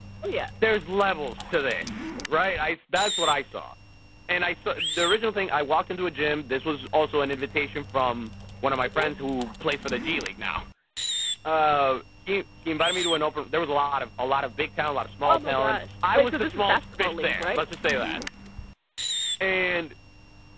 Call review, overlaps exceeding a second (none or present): present